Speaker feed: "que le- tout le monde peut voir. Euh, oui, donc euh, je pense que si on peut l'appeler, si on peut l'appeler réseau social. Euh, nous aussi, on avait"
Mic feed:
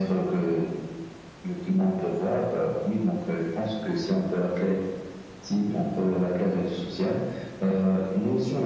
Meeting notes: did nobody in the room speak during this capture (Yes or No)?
Yes